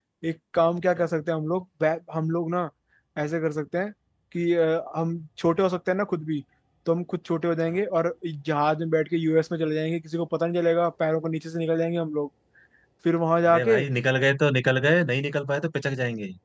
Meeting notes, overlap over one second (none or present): none